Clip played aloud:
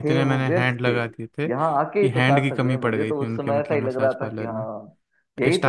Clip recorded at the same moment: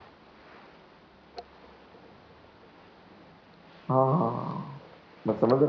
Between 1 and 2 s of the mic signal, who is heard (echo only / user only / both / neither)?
neither